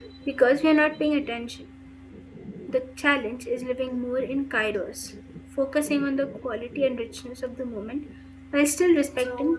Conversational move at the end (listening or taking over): taking over